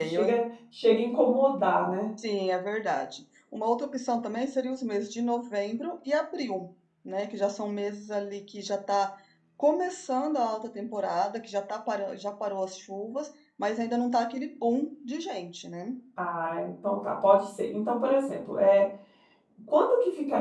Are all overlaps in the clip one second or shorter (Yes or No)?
Yes